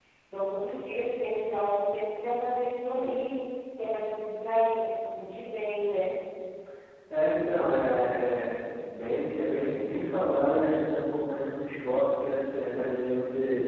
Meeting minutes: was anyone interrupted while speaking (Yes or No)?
No